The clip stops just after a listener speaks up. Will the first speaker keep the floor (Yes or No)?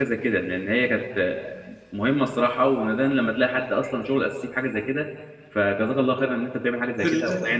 No